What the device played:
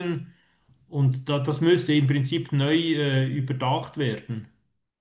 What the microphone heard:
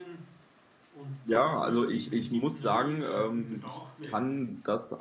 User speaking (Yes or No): Yes